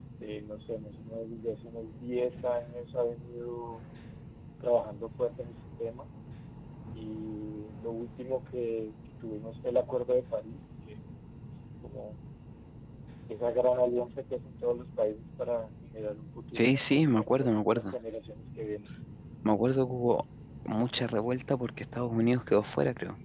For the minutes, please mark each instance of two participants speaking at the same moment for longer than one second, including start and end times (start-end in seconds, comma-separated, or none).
16.6-17.9